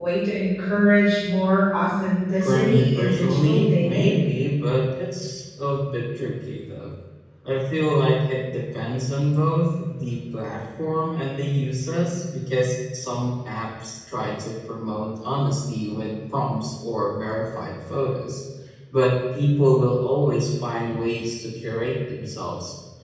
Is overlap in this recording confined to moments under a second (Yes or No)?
No